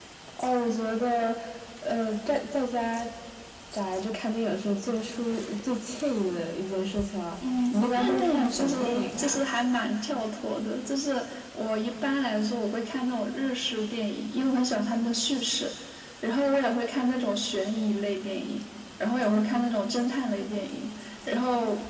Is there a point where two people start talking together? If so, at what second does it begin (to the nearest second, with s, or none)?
7 s